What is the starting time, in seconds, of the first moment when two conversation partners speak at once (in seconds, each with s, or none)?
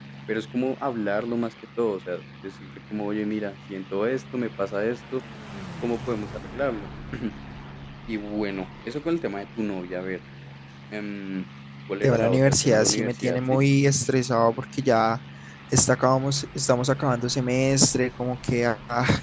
12.0 s